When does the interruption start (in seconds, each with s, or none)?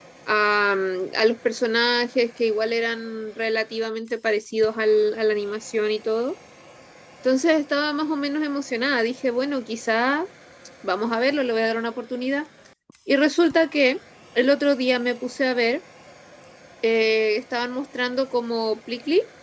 none